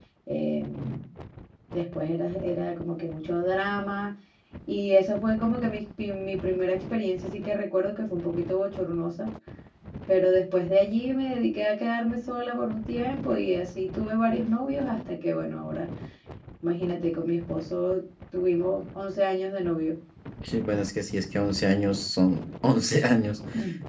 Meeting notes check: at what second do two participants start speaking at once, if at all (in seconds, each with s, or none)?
none